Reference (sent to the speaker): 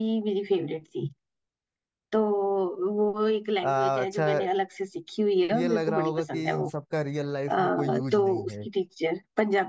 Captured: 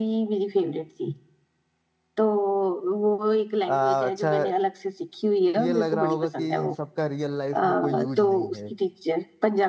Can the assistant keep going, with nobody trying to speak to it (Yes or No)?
Yes